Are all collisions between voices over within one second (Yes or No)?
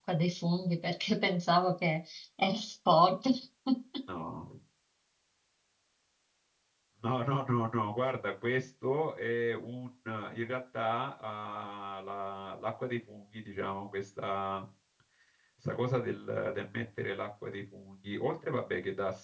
Yes